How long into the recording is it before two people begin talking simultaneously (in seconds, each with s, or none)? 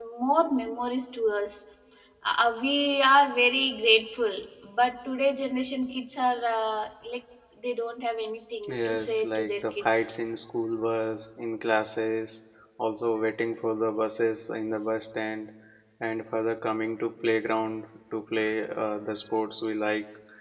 8.6 s